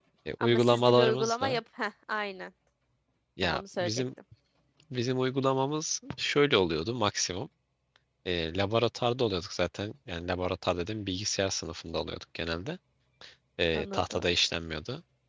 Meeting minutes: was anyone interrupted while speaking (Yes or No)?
Yes